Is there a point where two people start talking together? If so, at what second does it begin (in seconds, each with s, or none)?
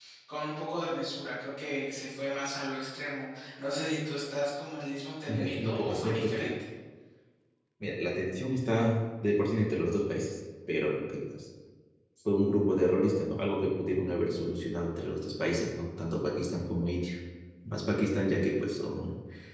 5.3 s